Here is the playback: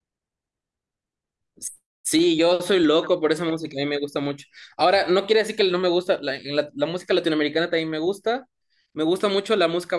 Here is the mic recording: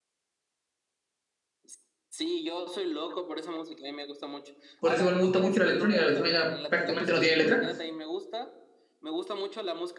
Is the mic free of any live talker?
No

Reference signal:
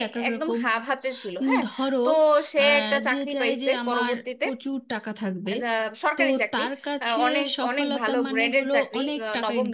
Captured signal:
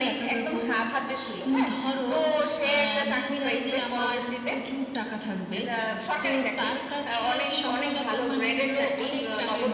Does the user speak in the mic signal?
No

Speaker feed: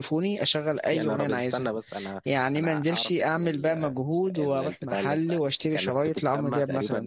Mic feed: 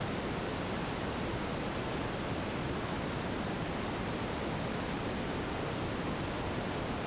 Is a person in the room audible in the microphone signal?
No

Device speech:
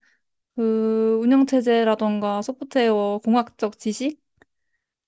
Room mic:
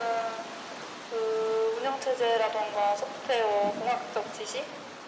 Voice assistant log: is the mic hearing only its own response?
Yes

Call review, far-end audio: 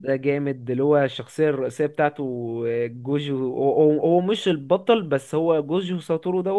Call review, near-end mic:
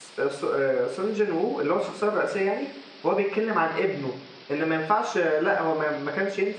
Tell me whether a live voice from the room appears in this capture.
Yes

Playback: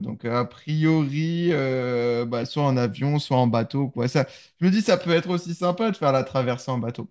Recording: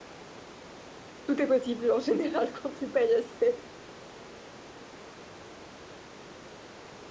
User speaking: Yes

